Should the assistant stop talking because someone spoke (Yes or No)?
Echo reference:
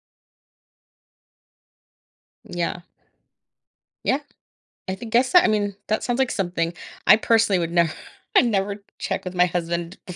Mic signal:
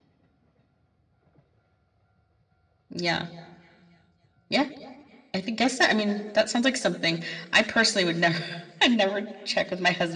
No